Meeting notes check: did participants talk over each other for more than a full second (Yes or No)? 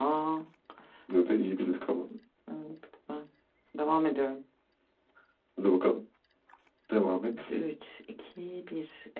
No